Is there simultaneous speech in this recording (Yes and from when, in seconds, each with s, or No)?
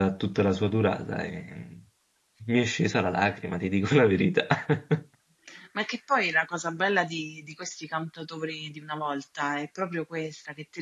No